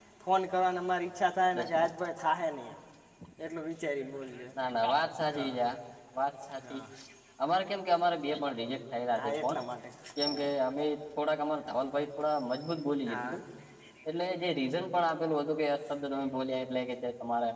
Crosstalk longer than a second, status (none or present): none